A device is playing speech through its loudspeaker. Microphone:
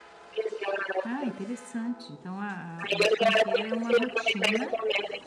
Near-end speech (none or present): present